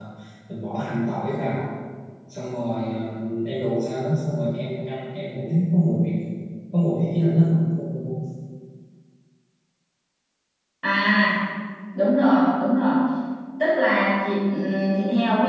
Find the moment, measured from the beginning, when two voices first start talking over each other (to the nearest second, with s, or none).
none